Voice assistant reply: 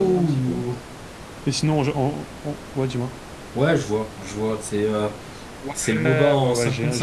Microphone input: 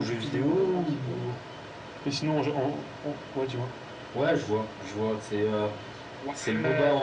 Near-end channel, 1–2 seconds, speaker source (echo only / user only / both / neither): echo only